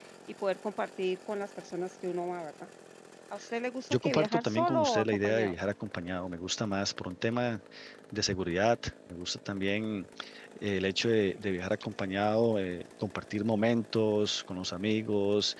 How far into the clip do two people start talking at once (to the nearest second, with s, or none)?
4 s